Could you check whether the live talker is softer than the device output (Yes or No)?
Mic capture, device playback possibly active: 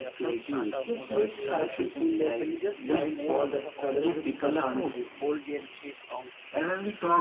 Yes